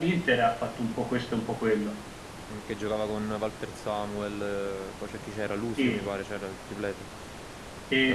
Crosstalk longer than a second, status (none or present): none